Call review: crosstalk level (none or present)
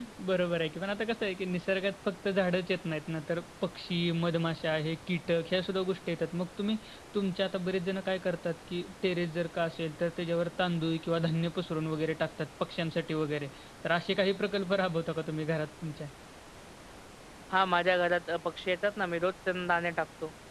none